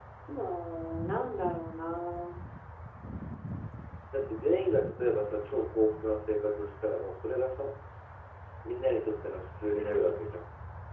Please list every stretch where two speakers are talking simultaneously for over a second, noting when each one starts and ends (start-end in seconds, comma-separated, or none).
none